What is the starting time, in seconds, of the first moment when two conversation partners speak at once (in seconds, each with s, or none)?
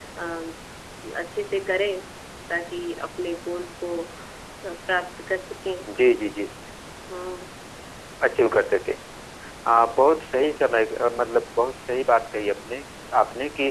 none